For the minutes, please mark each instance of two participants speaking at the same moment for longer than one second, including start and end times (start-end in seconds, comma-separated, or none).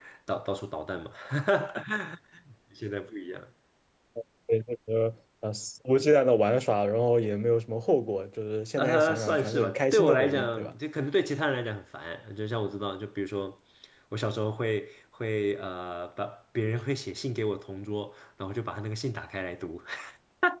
8.8-10.7